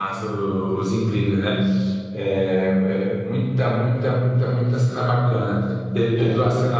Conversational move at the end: listening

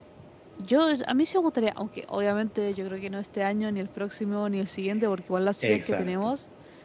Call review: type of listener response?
listening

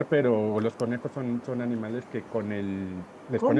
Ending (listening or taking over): listening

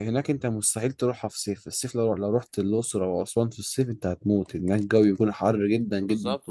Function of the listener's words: taking over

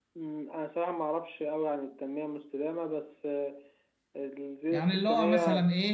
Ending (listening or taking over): taking over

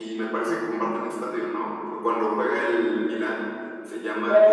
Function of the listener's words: taking over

